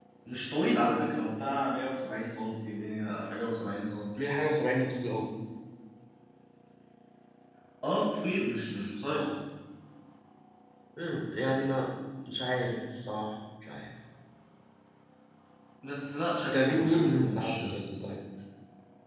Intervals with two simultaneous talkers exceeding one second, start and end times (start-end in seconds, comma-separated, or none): 16.5-17.8